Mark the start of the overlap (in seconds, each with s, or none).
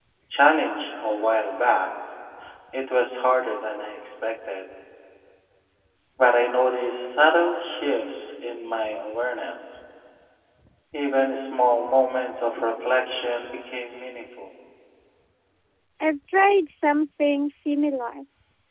none